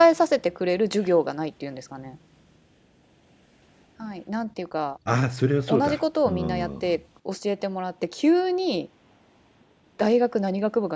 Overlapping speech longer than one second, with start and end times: 5.7-7.0

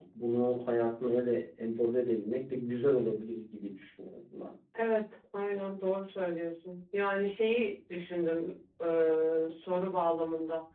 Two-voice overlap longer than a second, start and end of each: none

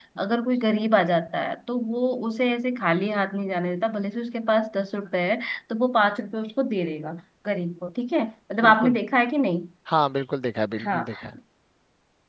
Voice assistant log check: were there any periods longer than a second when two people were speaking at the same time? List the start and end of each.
none

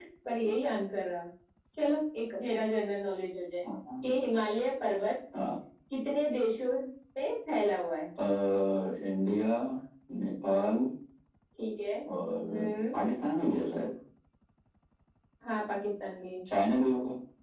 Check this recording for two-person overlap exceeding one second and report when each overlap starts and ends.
none

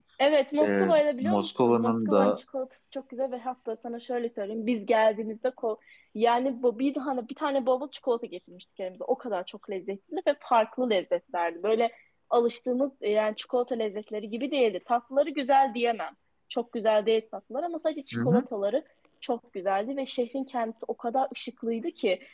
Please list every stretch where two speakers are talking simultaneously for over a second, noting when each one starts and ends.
0.6-2.4

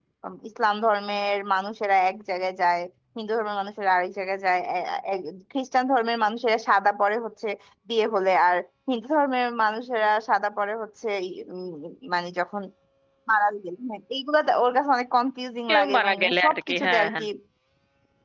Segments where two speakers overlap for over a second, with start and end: 15.7-17.2

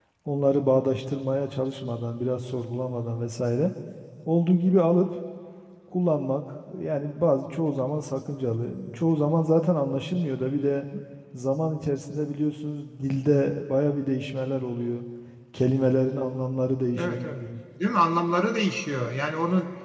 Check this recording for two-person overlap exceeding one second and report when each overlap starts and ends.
none

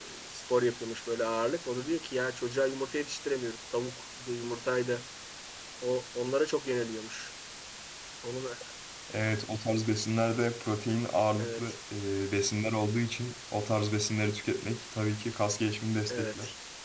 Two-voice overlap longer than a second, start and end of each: none

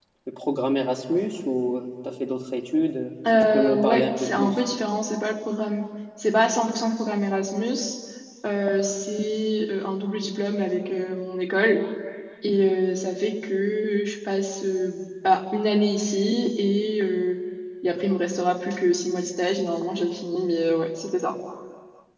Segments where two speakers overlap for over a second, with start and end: 3.3-4.6

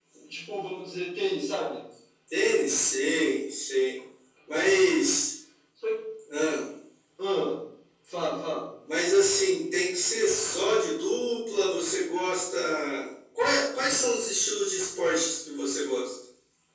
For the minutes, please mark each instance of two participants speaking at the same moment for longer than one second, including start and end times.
none

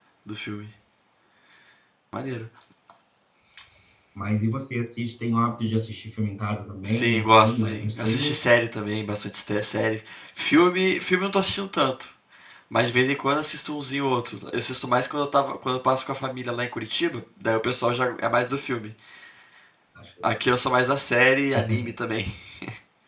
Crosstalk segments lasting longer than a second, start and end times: 6.8-8.4

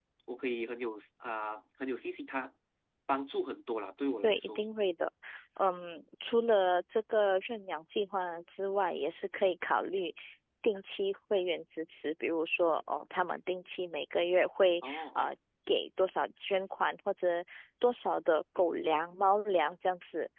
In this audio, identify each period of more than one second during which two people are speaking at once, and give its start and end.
none

